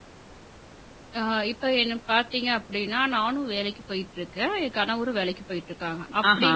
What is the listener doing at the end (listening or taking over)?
listening